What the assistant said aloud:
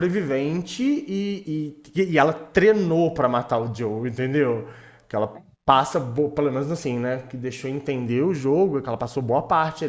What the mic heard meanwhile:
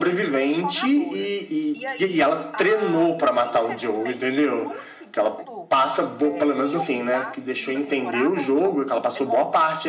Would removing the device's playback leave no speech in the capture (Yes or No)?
No